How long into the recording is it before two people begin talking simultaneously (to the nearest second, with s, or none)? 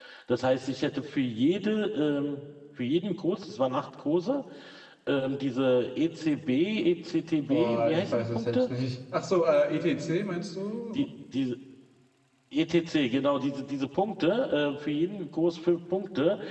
7 s